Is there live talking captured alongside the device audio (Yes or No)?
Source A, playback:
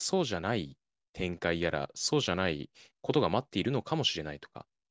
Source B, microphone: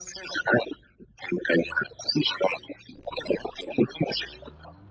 No